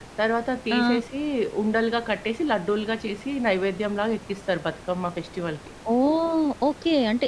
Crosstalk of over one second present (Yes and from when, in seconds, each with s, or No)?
No